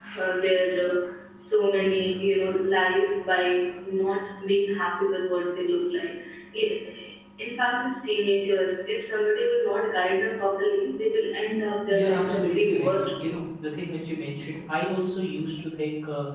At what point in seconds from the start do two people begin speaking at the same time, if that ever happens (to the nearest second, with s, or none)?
12 s